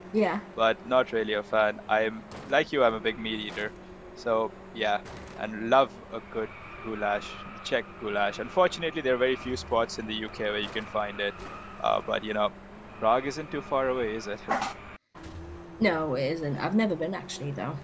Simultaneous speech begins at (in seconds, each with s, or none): none